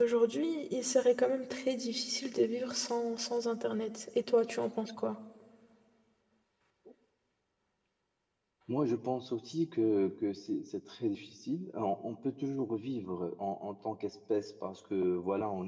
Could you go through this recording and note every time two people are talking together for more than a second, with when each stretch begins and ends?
none

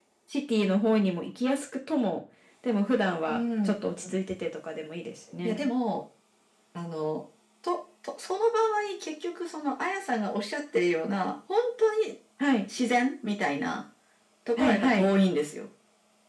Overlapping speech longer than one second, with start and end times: none

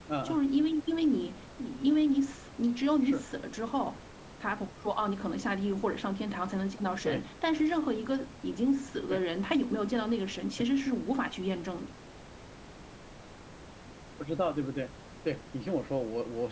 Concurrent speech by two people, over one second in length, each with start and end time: none

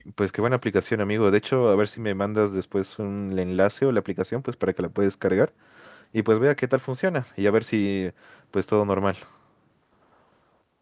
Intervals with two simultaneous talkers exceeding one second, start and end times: none

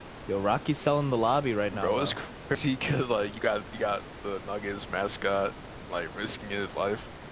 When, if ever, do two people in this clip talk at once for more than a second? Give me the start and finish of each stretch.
none

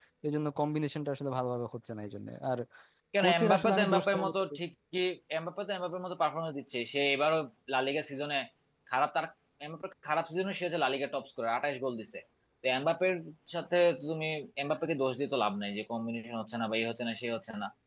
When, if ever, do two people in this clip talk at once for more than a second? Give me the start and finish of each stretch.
3.2-4.6

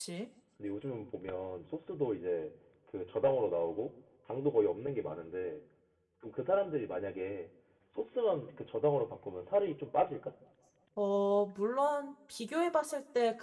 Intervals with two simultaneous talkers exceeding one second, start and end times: none

